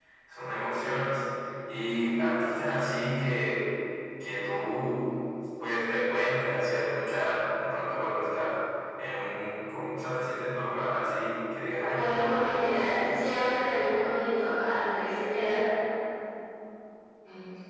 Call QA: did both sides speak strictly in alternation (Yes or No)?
No